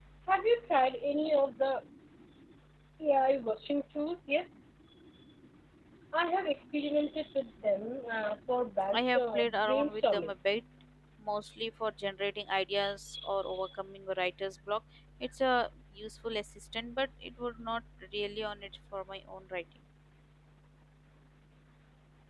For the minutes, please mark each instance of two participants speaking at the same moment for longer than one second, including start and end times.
8.9-10.3

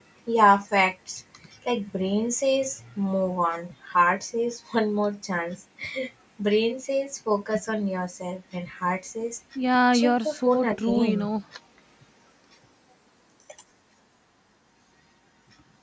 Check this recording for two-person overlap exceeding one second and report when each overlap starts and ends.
9.9-11.3

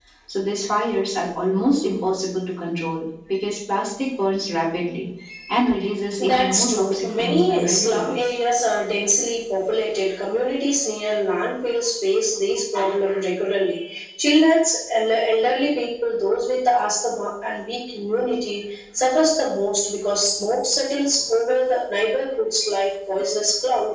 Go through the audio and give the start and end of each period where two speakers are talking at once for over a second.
6.2-8.3

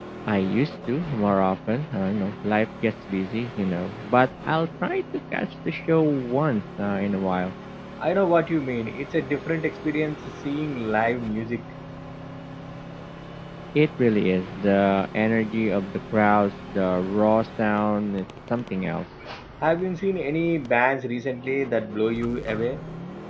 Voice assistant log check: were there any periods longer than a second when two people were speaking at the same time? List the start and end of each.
none

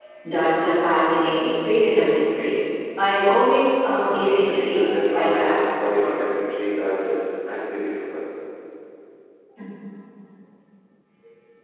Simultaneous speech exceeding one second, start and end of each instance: 4.0-6.5

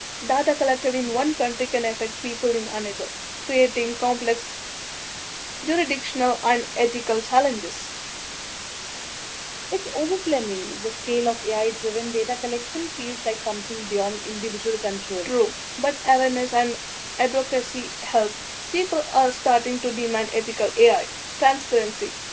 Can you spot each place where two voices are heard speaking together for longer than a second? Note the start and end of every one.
none

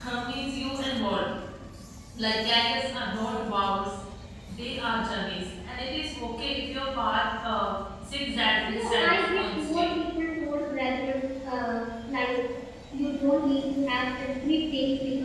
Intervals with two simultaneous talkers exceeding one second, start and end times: 8.7-9.9

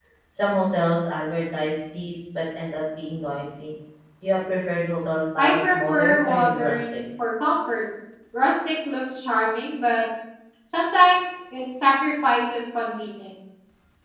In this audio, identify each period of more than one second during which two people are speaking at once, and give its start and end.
5.4-7.0

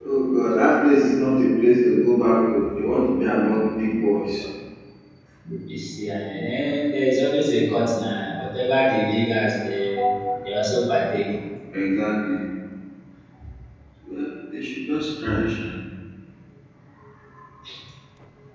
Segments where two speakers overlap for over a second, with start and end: none

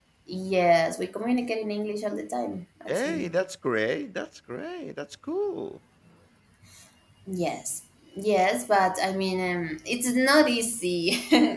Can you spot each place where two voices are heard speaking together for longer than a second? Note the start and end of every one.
none

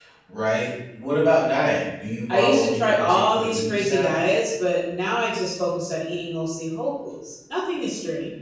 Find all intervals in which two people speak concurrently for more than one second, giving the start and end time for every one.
2.3-4.2

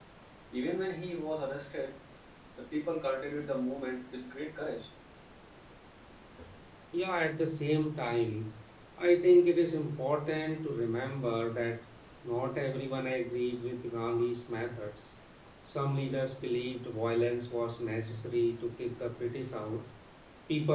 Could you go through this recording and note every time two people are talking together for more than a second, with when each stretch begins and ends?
none

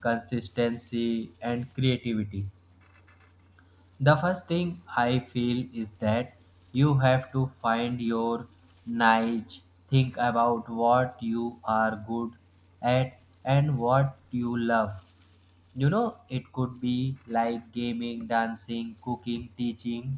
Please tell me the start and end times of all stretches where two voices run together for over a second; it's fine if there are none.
none

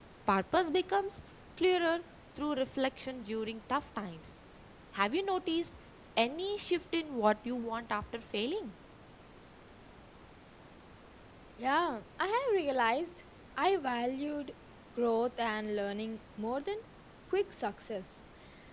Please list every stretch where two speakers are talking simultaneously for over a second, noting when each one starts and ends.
none

